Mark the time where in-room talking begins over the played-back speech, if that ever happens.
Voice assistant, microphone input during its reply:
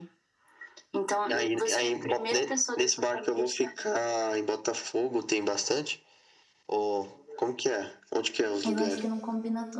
8.7 s

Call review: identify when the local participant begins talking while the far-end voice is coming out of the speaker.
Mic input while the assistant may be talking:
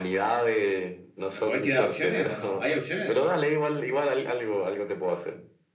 1.3 s

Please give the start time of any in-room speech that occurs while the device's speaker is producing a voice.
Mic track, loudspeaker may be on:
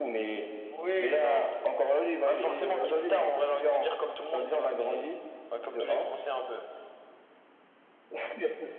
none

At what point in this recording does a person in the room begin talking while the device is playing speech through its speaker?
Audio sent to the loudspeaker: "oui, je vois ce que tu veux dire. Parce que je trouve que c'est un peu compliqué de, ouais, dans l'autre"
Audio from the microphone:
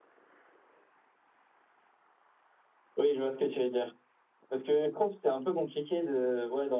none

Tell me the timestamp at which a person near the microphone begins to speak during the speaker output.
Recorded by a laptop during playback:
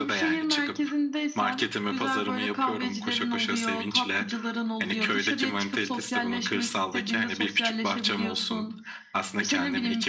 none

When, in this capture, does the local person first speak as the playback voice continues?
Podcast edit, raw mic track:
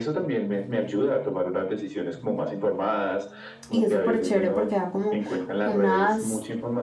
3.7 s

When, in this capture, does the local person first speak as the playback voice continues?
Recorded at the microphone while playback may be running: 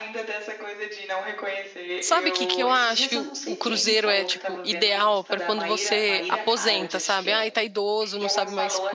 2.0 s

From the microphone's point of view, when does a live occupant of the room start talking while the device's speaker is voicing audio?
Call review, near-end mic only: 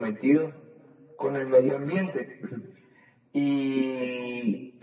none

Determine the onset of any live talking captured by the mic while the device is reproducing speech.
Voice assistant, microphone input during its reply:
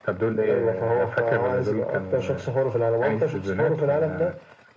none

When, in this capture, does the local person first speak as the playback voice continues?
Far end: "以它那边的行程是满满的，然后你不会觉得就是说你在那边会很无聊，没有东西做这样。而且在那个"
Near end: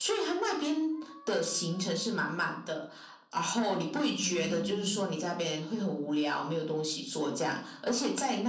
4.2 s

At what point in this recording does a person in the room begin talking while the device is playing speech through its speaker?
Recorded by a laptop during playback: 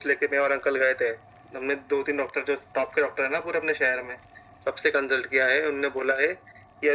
none

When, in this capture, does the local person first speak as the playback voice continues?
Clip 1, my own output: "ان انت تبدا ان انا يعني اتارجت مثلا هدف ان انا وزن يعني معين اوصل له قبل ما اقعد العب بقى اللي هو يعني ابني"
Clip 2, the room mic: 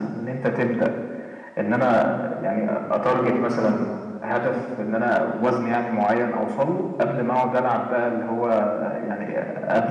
none

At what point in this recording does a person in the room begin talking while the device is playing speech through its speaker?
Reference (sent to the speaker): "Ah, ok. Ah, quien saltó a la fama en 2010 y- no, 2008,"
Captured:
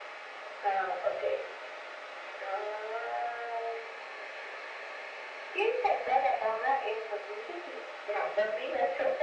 none

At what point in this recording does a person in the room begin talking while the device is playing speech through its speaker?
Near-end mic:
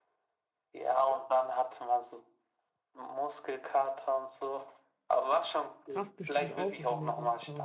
5.9 s

